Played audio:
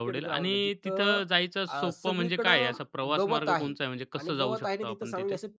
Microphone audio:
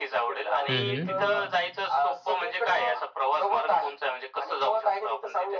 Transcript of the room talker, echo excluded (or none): हं, हं.